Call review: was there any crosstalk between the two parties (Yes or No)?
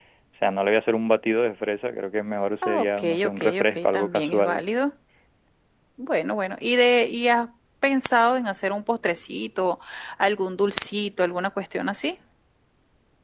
Yes